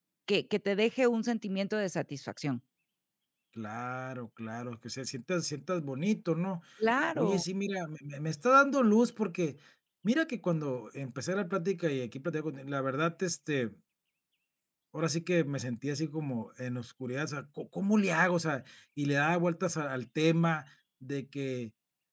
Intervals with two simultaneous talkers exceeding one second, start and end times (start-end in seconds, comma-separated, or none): none